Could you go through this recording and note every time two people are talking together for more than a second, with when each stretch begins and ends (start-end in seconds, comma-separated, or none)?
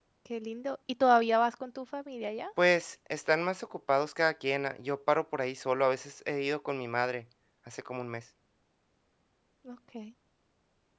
none